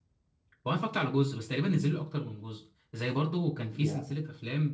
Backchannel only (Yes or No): Yes